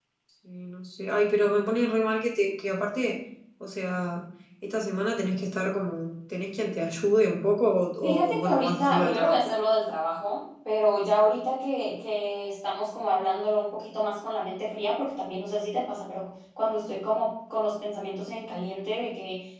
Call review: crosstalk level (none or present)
present